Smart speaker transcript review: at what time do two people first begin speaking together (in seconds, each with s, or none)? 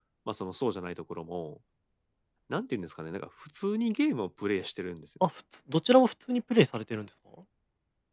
none